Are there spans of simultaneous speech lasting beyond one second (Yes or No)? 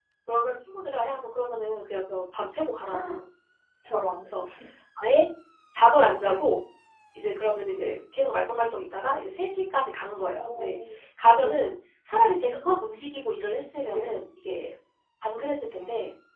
No